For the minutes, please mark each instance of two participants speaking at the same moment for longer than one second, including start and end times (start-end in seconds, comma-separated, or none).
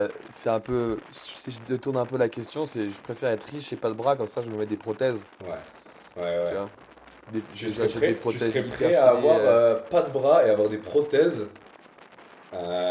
7.6-9.6